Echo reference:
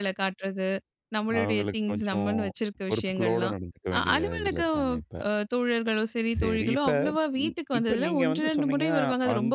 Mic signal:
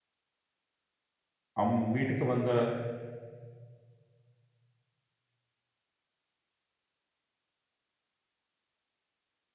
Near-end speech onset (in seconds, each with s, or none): 1.6 s